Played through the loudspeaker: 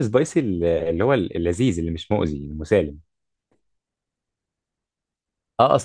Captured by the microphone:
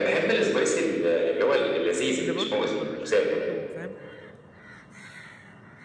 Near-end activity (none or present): present